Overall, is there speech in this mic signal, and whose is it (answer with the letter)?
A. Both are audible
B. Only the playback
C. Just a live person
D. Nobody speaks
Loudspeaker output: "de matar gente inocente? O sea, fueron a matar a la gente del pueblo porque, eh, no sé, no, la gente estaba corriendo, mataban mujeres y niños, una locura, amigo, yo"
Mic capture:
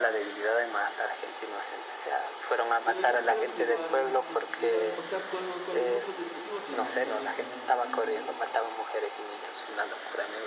A